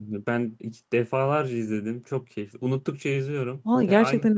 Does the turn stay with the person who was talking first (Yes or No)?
No